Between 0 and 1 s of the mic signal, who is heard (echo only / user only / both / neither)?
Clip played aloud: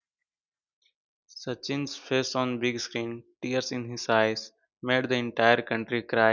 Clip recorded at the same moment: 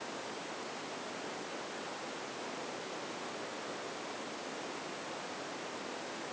neither